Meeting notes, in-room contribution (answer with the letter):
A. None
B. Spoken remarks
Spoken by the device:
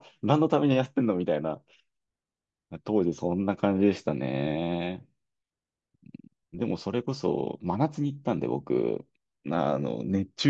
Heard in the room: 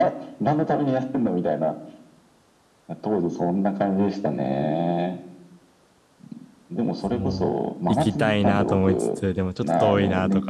B